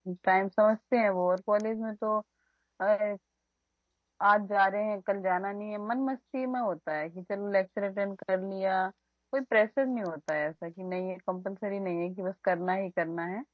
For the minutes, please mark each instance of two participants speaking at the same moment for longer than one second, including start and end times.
none

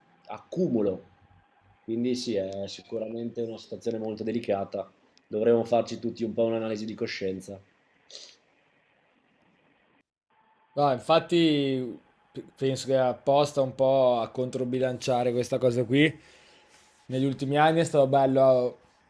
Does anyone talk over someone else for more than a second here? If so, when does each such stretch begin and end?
none

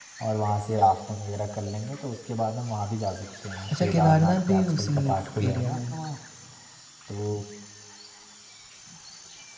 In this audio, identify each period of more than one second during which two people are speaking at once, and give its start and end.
3.8-5.0

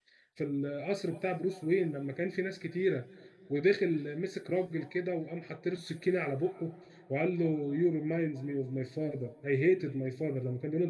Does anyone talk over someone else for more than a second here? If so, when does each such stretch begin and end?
none

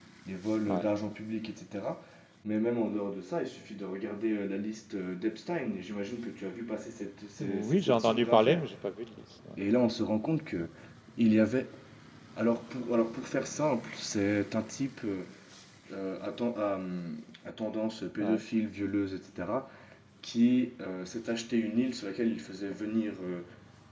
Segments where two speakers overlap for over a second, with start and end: 7.4-8.6

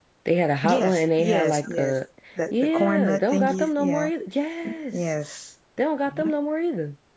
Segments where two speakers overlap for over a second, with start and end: 0.6-2.0, 2.5-4.1

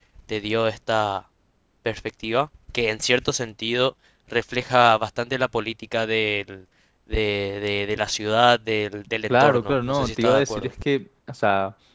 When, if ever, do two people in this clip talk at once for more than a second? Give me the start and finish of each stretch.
9.3-10.7

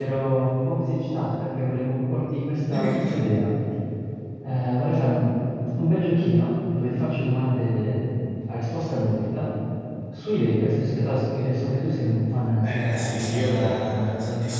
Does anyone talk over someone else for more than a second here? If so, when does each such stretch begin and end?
12.6-14.0

